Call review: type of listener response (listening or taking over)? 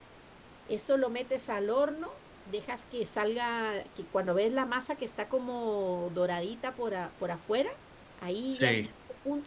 listening